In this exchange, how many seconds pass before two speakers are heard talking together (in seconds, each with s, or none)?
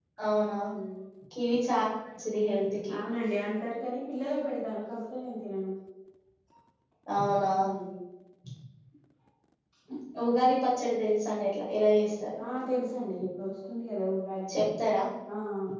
none